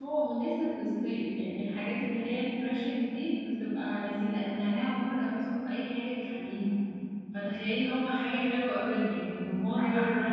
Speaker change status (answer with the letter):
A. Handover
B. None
A